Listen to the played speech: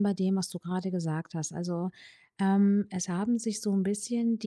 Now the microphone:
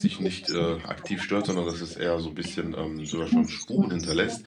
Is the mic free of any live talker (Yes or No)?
No